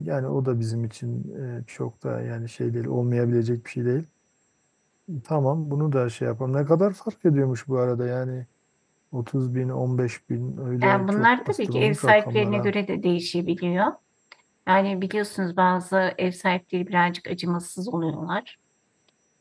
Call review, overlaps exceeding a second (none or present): present